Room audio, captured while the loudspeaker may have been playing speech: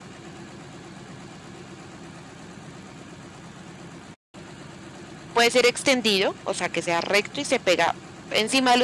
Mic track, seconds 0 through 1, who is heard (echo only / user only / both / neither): neither